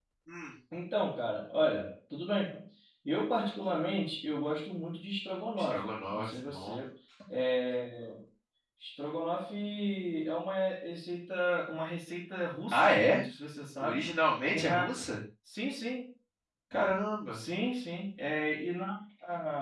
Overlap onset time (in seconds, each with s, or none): 5.6 s